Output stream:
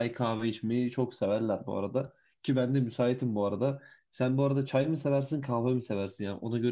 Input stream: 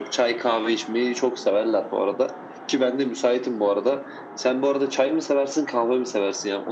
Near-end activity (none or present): none